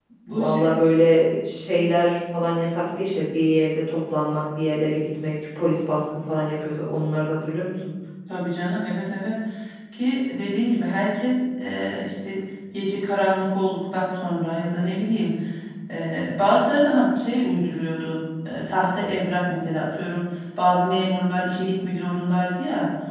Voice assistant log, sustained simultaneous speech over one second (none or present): none